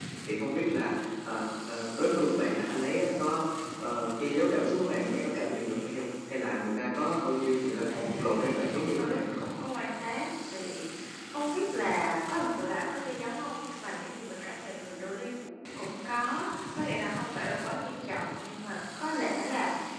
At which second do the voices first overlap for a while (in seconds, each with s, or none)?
7.9 s